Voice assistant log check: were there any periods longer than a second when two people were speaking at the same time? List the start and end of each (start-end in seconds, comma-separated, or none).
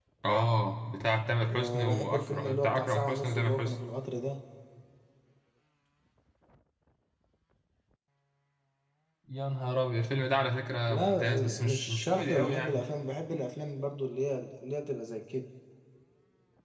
1.5-3.8, 10.9-12.9